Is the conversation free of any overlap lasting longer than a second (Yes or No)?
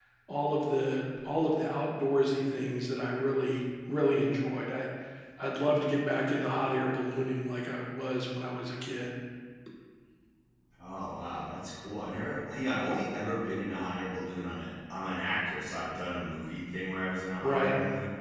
Yes